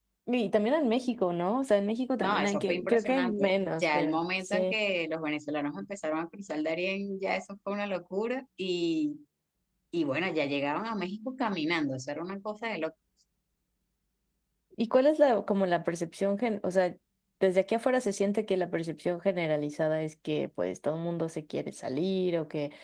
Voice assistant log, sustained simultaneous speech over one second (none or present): present